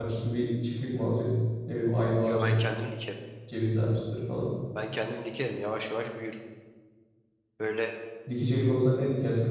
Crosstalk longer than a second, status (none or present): none